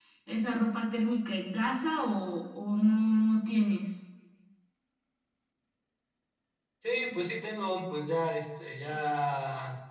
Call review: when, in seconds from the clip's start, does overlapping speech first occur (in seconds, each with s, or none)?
none